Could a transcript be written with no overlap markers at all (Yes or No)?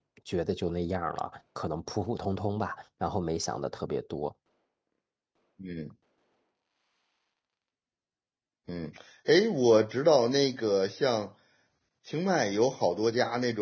Yes